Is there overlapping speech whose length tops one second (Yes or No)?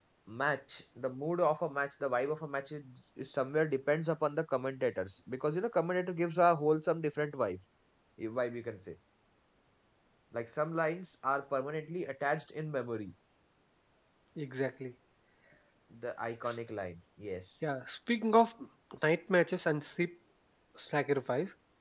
No